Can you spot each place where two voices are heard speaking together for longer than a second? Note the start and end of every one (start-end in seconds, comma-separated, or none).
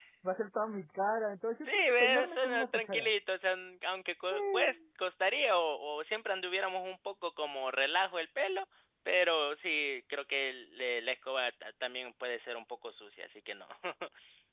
1.6-3.1